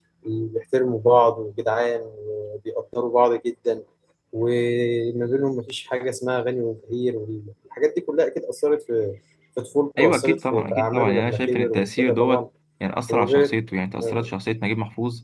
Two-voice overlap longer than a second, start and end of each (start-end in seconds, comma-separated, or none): 10.0-12.4